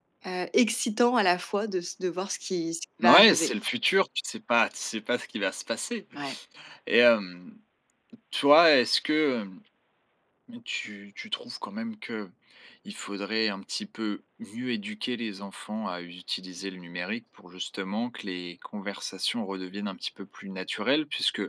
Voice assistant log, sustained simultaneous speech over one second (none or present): none